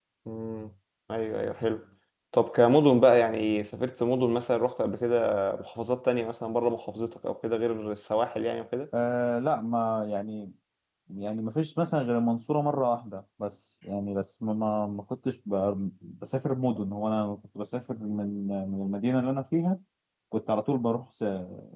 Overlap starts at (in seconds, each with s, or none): none